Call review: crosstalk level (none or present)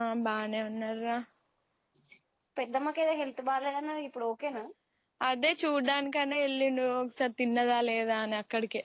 none